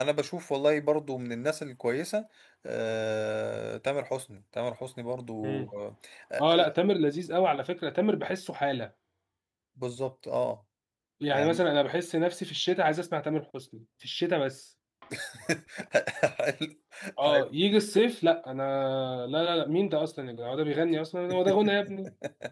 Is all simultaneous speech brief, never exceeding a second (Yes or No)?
Yes